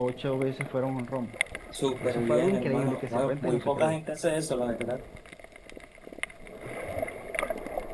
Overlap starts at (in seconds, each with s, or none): 2.0 s